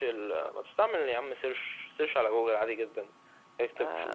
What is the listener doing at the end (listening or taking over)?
listening